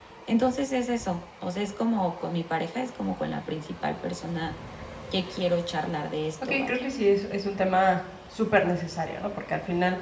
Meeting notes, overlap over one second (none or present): none